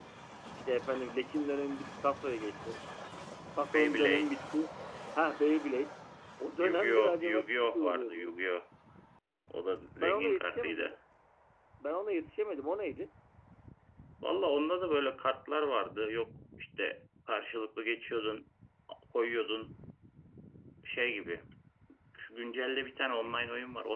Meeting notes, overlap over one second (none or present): present